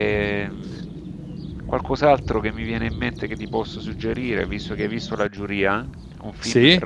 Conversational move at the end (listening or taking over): listening